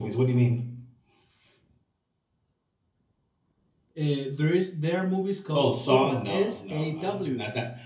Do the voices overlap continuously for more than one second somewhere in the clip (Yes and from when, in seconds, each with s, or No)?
Yes, from 5.5 s